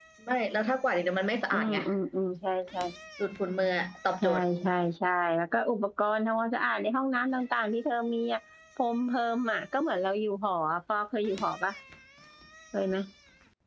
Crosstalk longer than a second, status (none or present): none